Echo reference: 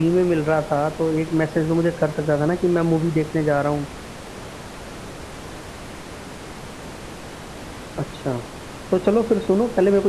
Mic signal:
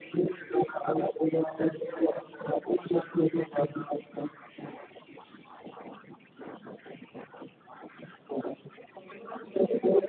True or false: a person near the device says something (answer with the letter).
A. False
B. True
A